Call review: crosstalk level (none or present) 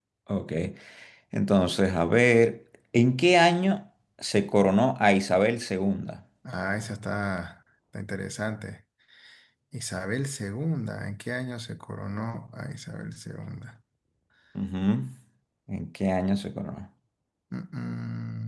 none